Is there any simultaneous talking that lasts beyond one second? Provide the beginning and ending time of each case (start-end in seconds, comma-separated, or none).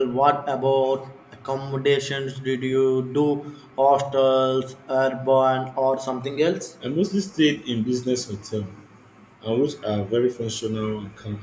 none